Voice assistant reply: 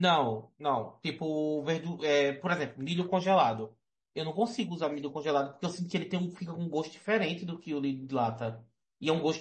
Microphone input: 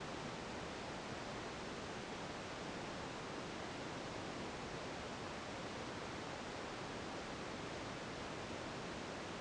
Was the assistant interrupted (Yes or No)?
No